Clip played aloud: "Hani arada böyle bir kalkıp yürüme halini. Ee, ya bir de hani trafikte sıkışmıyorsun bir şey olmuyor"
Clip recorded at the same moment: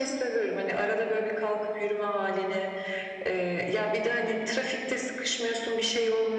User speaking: No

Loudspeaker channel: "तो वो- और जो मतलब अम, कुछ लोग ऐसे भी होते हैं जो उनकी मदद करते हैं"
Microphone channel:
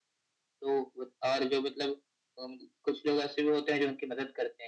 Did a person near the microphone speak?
No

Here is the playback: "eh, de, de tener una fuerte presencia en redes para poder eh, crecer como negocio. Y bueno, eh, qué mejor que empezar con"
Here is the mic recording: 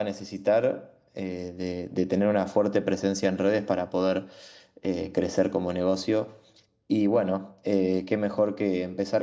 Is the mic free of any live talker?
Yes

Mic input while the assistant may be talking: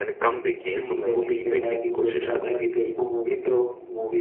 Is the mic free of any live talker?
No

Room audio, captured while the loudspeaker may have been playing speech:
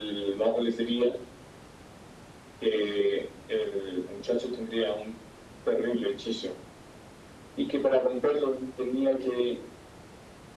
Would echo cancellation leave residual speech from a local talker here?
No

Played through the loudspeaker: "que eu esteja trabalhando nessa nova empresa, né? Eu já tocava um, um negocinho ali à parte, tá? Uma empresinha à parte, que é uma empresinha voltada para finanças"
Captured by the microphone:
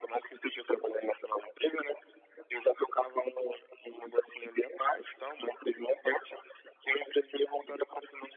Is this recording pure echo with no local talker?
Yes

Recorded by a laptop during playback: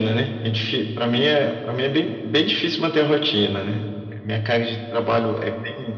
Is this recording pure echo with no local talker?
Yes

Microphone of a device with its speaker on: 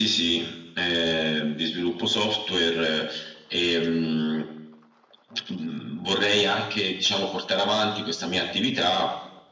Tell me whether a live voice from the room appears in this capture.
No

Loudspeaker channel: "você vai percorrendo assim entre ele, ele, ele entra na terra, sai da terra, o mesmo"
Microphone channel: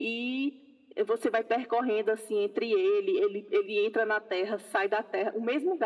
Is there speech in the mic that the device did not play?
No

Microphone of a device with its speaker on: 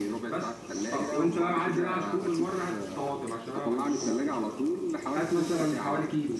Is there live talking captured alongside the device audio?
Yes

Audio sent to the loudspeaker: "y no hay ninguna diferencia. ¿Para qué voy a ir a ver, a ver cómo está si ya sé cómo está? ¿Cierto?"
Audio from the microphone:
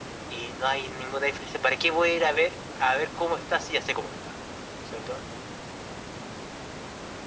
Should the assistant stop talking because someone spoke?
No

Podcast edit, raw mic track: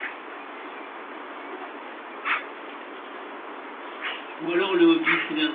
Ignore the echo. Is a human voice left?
Yes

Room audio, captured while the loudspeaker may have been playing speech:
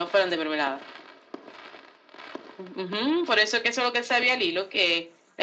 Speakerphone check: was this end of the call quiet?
Yes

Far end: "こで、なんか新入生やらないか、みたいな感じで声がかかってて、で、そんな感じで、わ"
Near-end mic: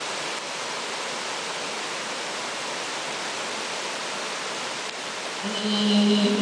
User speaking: Yes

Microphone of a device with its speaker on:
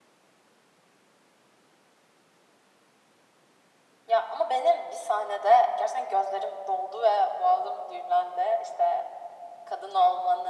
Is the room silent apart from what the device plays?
Yes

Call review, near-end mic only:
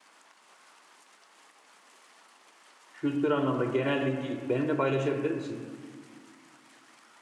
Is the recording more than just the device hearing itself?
Yes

